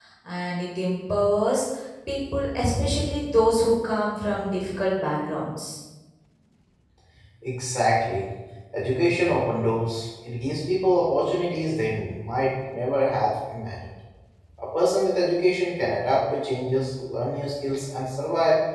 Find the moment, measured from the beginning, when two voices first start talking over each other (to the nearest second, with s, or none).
none